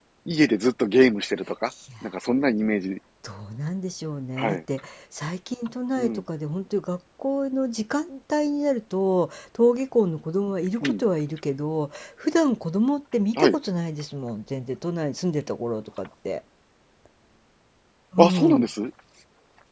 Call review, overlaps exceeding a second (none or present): none